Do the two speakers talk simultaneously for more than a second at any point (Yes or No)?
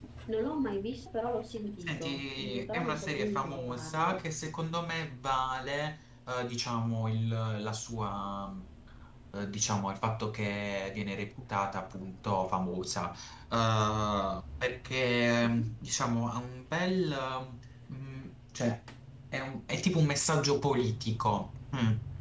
Yes